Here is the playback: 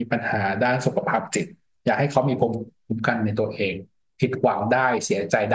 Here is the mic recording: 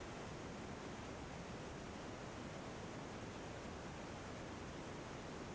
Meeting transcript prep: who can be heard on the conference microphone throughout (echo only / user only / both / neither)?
neither